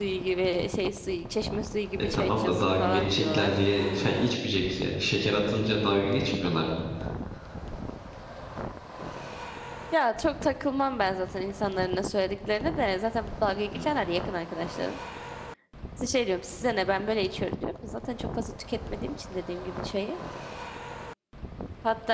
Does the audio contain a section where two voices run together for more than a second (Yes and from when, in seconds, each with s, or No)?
Yes, from 2.1 s